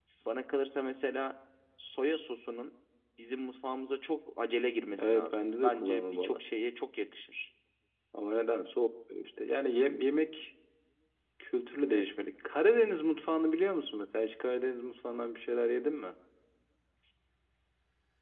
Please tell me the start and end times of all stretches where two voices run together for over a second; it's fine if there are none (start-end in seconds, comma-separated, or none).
5.0-6.4